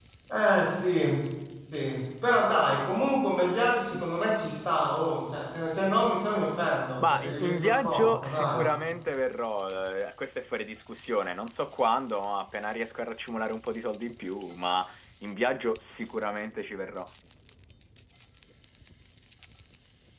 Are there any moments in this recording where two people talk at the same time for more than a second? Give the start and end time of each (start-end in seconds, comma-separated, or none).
7.0-8.6